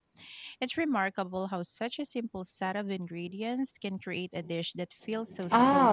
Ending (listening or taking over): taking over